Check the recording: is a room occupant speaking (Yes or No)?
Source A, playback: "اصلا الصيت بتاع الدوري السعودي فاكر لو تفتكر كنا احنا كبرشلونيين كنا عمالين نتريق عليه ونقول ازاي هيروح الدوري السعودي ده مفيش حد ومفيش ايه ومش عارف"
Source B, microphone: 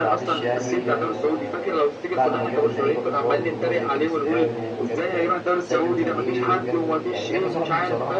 Yes